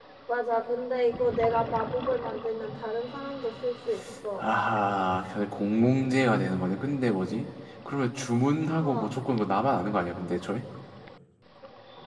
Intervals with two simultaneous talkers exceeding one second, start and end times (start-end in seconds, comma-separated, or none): none